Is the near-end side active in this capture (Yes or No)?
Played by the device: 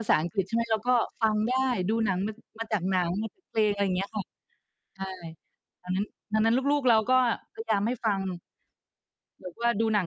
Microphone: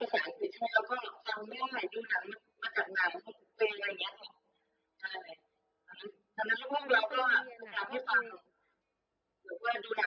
Yes